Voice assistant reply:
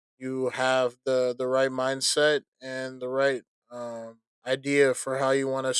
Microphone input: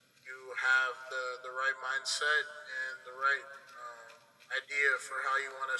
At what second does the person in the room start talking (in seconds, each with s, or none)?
none